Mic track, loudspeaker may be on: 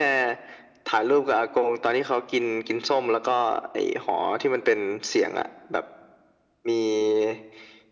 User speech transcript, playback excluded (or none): none